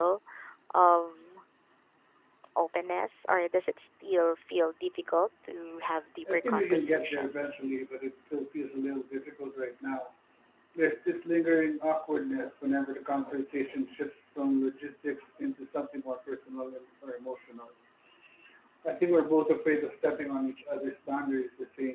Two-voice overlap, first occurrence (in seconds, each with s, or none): 6.3 s